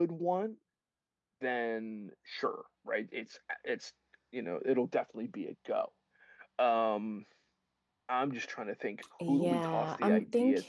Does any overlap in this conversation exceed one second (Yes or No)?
Yes